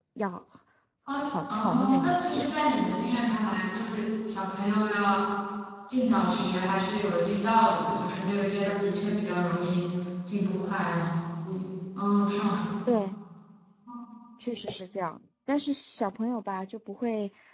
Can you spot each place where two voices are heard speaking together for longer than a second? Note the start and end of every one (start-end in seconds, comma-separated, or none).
1.2-2.6